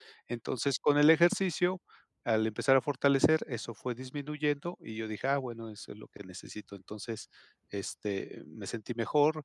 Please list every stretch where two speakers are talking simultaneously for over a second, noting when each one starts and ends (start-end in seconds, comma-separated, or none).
none